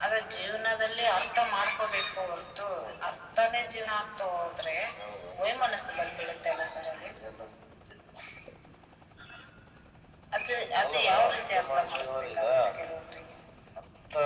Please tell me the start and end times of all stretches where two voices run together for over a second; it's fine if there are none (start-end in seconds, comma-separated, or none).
10.8-12.4